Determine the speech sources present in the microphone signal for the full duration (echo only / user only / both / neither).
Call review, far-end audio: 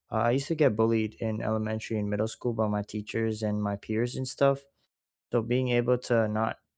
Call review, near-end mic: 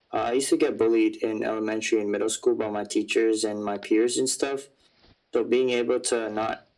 echo only